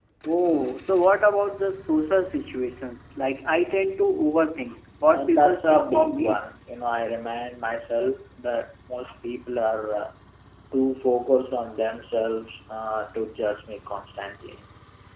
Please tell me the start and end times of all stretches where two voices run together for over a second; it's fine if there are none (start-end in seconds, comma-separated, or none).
5.1-6.4